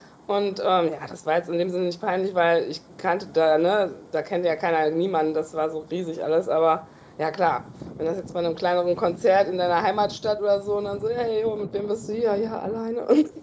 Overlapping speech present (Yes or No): No